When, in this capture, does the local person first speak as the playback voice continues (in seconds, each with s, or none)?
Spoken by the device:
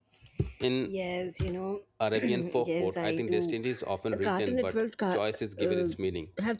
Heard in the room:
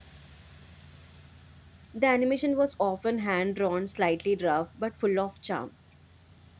1.9 s